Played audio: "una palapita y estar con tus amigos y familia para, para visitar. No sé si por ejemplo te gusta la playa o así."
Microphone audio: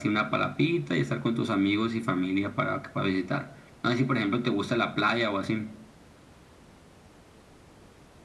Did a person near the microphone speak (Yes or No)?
No